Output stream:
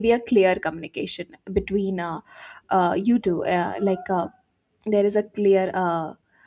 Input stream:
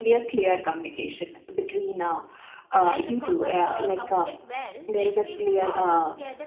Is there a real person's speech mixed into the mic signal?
Yes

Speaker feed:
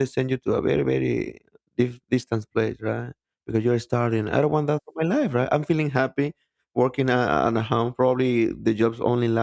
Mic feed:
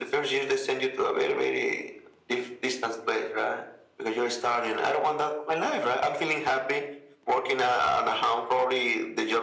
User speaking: No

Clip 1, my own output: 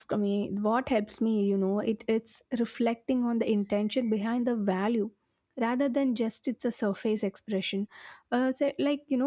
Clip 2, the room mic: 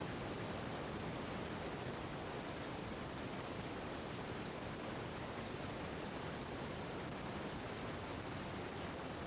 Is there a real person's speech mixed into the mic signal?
No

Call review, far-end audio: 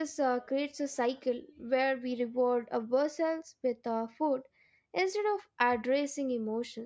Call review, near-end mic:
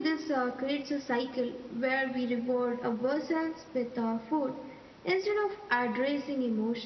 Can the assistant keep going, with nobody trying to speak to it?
Yes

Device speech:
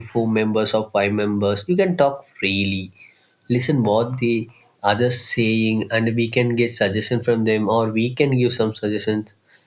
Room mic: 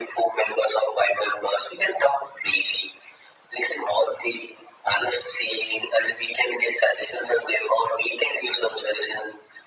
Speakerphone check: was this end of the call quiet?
Yes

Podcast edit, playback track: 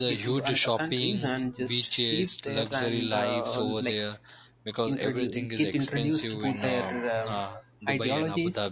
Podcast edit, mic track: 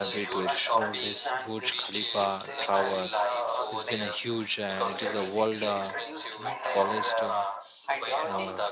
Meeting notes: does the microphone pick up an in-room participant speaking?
Yes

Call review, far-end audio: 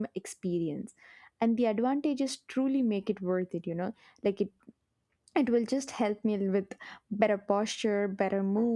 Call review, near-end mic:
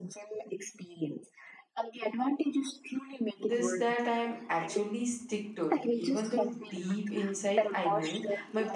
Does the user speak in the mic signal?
Yes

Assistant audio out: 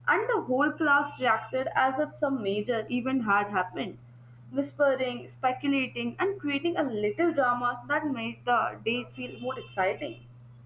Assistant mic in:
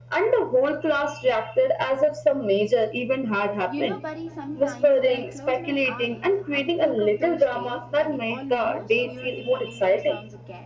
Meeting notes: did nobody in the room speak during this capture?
No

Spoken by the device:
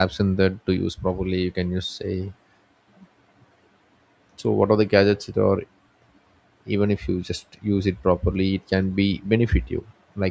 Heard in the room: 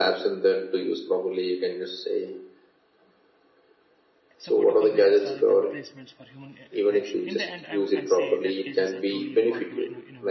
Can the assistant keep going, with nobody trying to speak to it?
No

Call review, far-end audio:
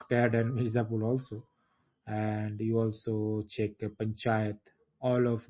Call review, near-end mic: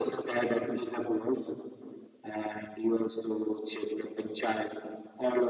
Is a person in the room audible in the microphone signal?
No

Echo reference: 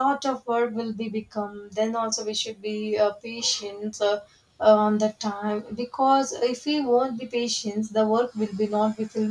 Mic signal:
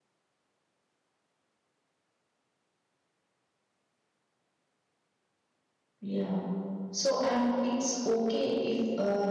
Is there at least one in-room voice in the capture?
Yes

